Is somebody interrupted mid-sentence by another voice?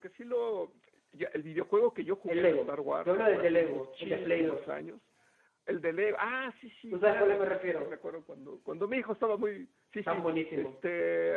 Yes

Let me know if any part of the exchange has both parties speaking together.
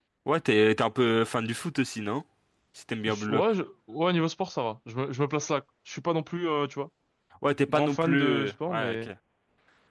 Yes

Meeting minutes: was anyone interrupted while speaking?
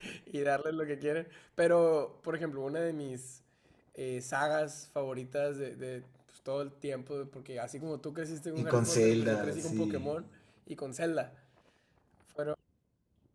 Yes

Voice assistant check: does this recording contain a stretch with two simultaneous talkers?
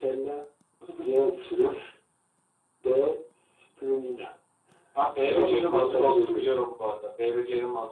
Yes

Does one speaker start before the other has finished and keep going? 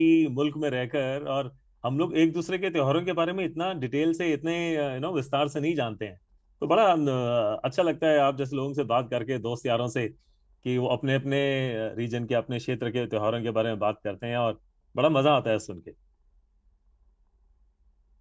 No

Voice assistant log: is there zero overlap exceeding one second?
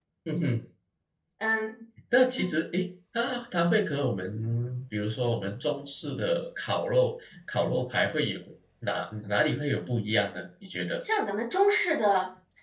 Yes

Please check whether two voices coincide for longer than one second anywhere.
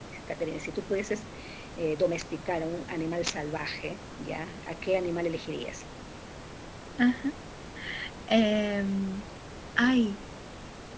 No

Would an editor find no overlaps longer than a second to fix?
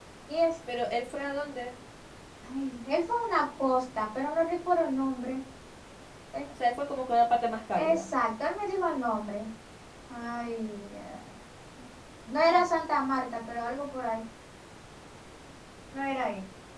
Yes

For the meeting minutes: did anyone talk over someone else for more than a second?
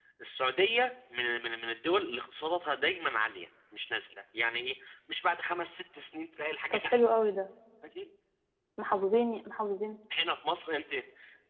No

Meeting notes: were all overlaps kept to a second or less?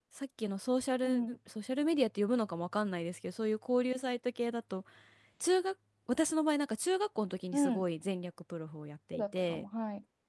Yes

